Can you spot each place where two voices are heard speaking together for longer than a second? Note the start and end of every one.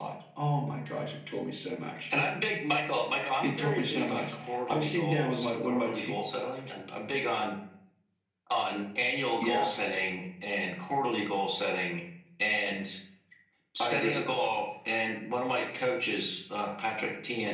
3.4-6.1

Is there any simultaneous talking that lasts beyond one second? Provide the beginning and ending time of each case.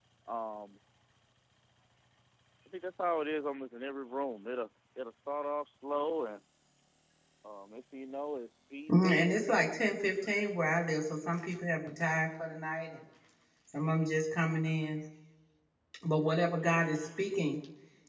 none

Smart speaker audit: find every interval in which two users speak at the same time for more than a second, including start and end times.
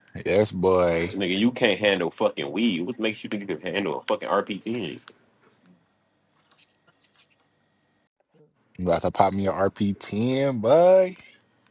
none

